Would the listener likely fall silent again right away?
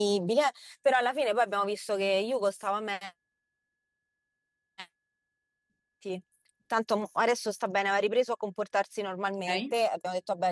Yes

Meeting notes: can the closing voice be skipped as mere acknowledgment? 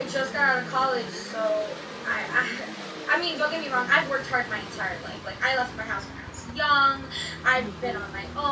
Yes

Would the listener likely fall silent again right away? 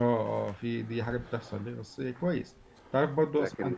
Yes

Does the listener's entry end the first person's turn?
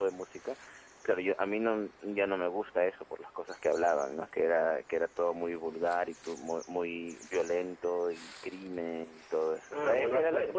Yes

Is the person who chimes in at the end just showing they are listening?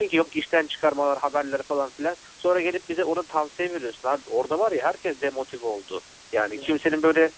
Yes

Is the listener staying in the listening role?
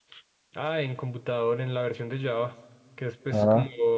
Yes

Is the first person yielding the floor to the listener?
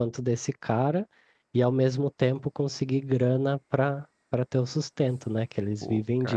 Yes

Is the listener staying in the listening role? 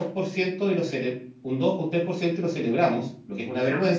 Yes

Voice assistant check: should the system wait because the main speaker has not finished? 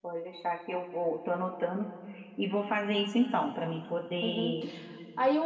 No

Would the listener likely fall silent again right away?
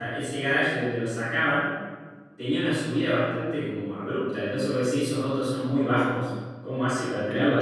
No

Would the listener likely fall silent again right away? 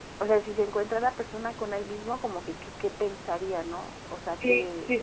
No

